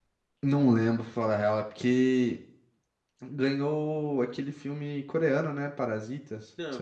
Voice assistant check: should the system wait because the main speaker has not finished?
No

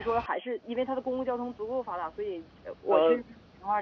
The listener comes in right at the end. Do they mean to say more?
No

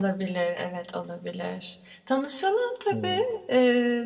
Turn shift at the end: No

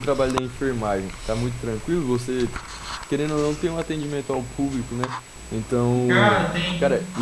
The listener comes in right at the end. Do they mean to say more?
No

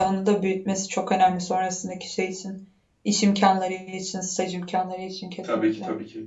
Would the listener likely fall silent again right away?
No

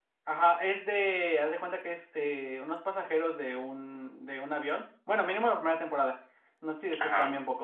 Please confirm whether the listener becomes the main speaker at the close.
No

